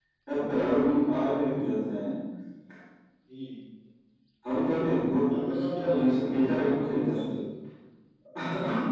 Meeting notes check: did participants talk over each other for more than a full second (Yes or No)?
Yes